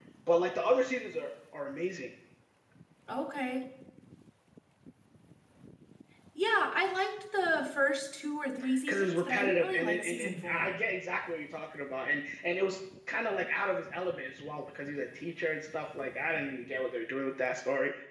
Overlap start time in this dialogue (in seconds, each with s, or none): 8.9 s